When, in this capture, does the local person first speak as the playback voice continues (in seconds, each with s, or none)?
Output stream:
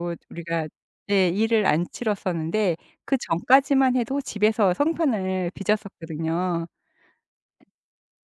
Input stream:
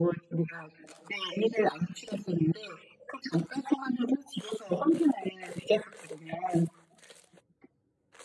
none